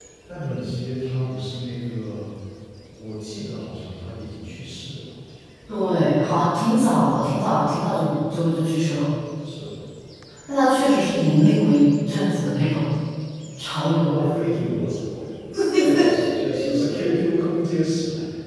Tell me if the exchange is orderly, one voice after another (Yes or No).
No